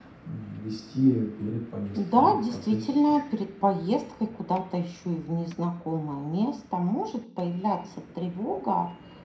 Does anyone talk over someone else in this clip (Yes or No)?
Yes